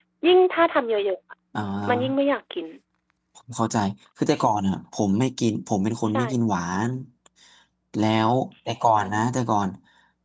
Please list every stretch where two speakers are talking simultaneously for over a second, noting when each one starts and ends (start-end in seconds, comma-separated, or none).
none